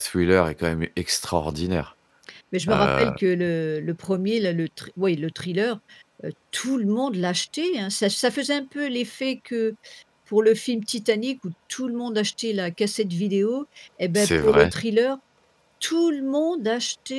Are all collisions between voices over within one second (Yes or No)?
Yes